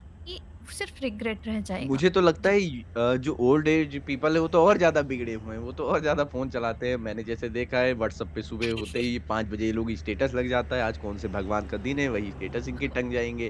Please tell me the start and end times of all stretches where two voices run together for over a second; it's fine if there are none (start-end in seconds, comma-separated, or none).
none